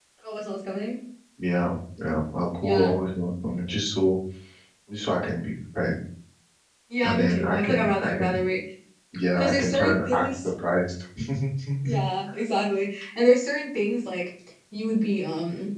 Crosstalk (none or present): present